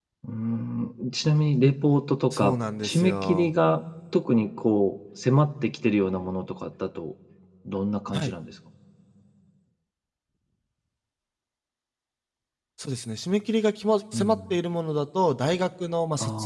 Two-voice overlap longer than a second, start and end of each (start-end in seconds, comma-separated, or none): 2.3-3.5